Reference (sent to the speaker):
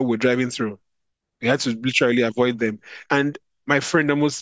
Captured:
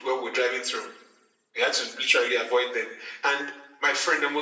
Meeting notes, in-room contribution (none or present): none